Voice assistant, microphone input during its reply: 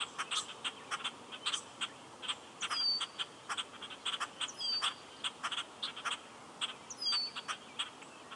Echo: none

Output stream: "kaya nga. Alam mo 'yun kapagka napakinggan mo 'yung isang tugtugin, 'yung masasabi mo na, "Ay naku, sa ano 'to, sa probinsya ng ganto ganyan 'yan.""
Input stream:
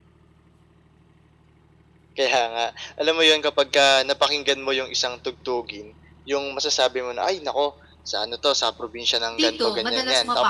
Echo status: present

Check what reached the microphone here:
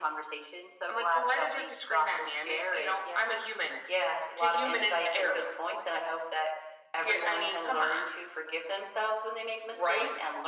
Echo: present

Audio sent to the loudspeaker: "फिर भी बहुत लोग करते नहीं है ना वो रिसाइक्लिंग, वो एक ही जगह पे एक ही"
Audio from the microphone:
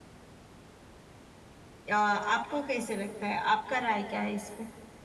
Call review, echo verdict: none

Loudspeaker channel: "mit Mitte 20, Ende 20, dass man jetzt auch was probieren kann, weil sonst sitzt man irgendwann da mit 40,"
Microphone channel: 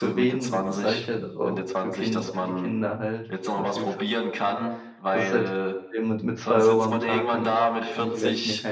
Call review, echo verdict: present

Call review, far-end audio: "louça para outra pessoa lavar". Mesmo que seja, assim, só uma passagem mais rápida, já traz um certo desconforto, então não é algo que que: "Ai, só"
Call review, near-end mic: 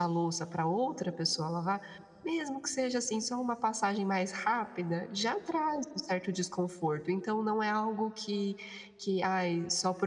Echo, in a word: present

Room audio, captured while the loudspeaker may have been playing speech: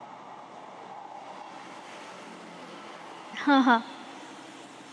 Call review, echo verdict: none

